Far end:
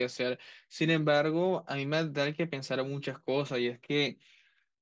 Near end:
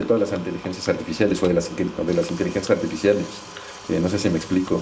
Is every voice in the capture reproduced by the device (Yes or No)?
No